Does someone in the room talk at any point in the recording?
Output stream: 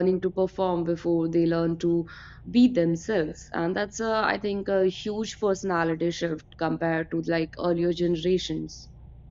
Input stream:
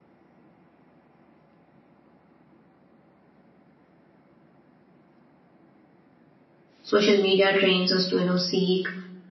Yes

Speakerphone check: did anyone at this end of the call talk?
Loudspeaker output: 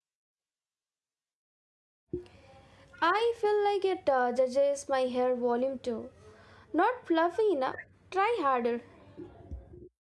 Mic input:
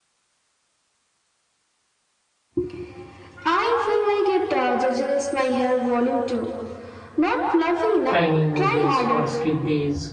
Yes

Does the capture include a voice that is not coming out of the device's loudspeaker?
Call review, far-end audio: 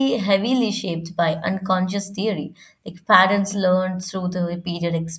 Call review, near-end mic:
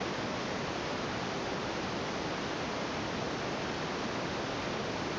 No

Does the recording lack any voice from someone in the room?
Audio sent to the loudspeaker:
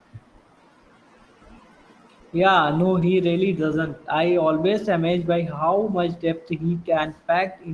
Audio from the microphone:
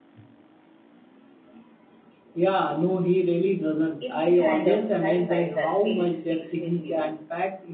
No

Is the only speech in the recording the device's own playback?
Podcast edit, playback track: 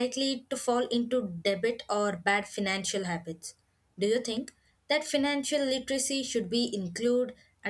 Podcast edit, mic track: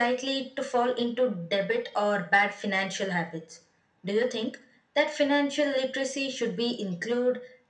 Yes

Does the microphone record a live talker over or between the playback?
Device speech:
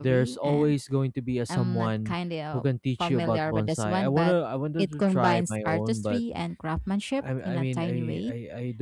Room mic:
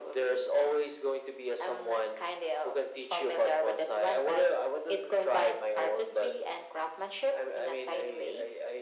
No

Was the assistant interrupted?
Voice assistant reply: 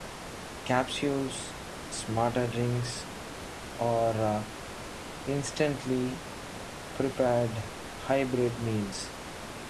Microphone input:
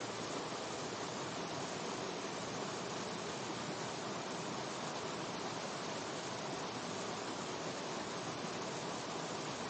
No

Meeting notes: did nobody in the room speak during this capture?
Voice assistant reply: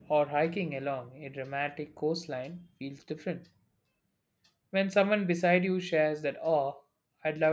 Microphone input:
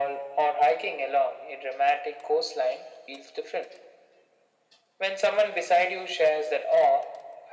Yes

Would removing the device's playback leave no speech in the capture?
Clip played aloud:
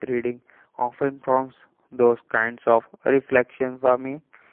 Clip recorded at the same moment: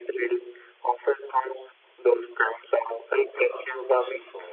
No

